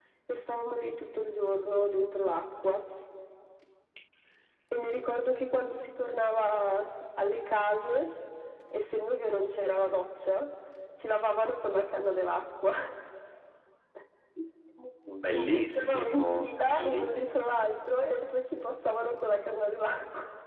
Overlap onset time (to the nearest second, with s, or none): 15 s